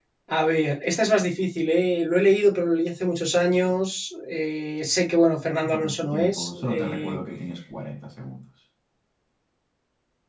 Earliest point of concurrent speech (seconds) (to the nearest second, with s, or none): 6 s